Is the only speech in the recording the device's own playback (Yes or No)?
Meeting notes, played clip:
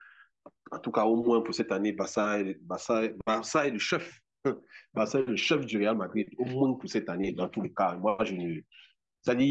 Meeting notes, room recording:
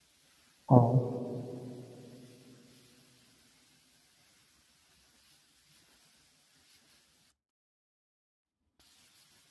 No